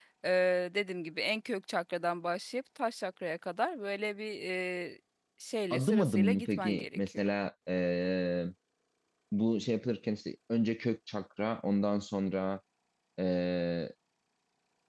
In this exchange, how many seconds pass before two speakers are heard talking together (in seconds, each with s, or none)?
5.7 s